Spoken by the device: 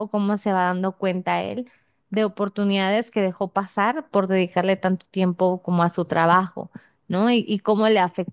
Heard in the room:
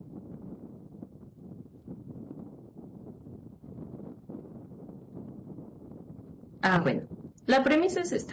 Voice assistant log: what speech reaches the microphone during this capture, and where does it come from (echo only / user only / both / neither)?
user only